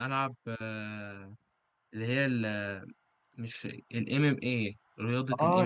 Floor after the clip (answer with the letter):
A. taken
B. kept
A